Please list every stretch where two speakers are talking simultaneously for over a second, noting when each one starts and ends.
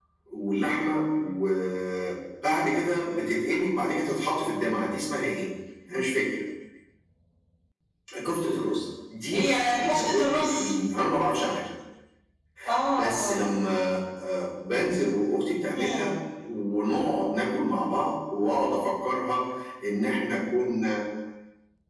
9.3-10.7

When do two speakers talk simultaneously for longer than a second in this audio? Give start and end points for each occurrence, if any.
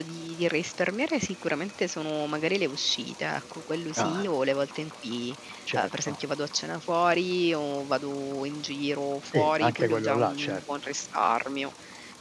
9.3-10.6

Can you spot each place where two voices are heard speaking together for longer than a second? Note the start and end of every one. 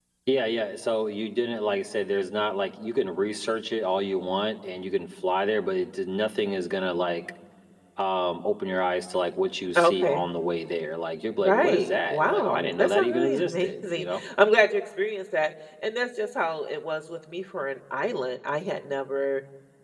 11.4-14.2

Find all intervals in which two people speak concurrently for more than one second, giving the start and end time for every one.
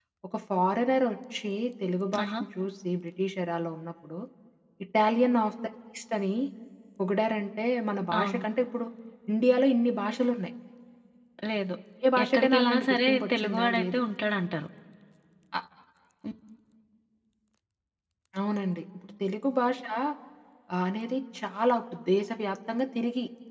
12.2-14.0

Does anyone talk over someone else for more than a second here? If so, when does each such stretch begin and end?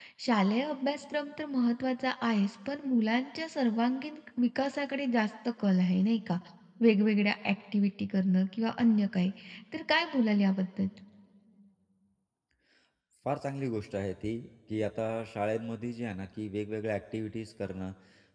none

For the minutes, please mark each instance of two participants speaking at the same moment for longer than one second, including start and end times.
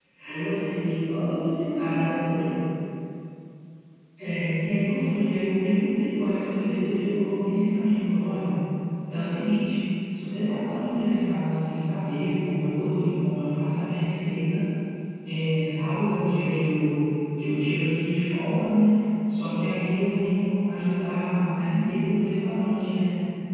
none

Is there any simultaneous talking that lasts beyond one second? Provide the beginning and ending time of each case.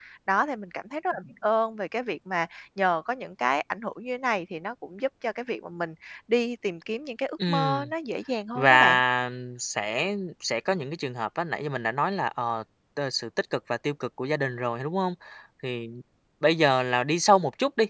none

